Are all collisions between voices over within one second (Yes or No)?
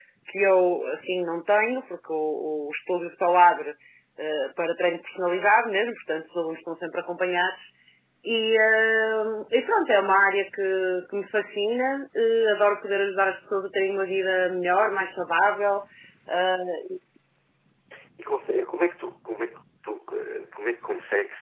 Yes